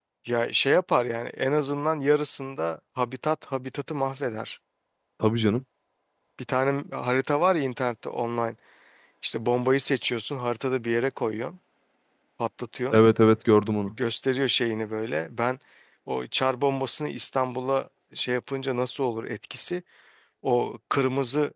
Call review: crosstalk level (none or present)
none